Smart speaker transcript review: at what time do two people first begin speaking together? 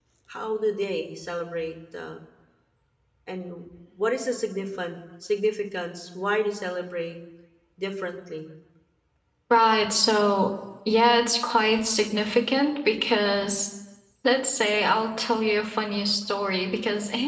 none

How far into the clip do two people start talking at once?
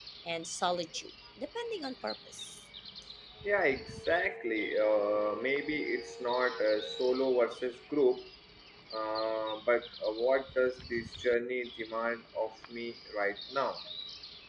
none

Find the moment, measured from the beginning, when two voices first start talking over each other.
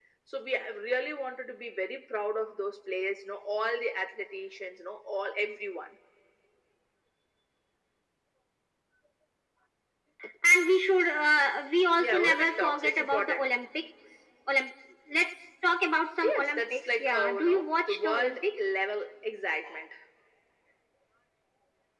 12.0 s

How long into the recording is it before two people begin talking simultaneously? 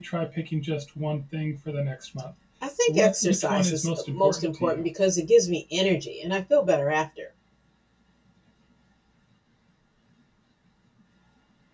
2.9 s

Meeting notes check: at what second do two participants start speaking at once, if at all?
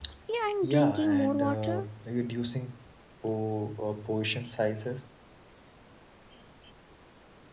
0.6 s

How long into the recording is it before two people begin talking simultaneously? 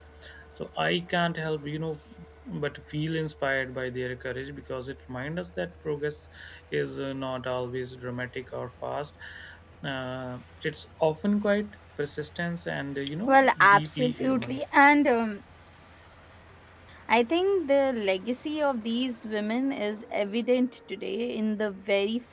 13.3 s

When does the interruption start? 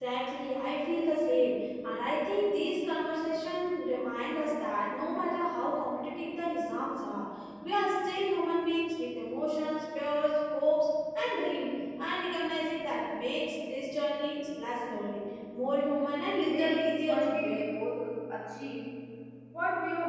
16.4 s

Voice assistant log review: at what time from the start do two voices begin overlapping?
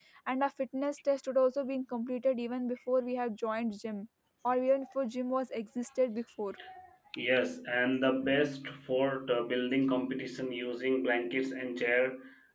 none

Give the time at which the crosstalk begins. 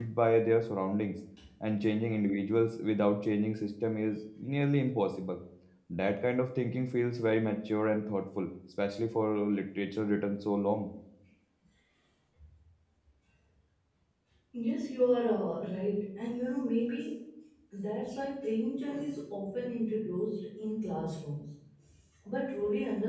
none

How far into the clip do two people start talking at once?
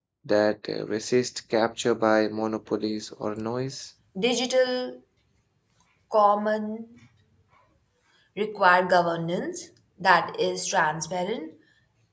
none

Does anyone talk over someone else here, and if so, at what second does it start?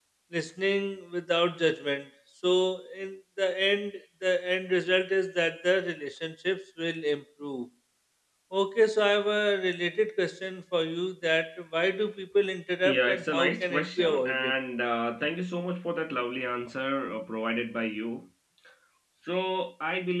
12.8 s

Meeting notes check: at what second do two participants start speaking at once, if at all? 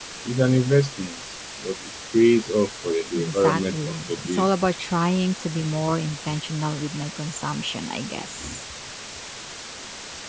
3.1 s

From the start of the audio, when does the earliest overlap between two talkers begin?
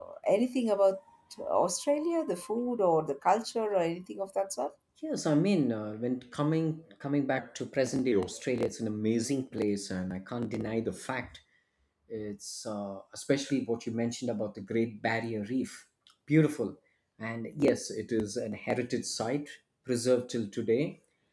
none

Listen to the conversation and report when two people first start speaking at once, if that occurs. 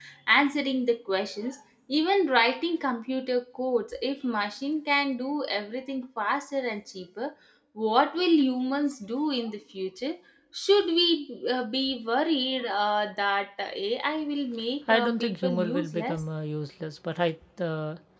14.9 s

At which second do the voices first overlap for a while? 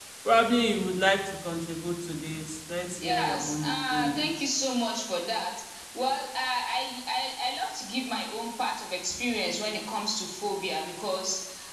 3.0 s

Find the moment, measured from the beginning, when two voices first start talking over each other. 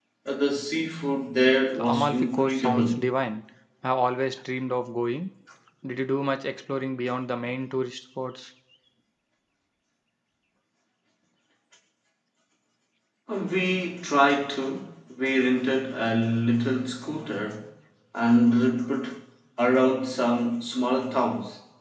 1.7 s

